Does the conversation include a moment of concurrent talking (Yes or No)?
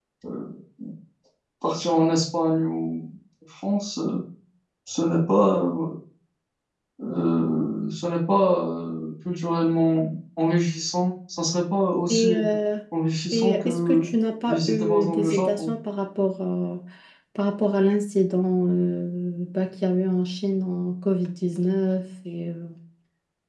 Yes